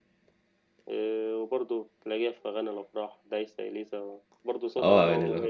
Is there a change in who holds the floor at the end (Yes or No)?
Yes